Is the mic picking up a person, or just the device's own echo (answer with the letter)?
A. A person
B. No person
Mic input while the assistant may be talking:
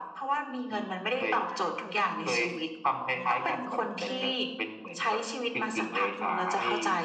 A